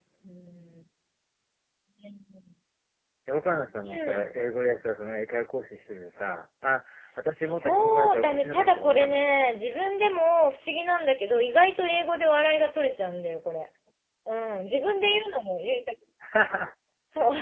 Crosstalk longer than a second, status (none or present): present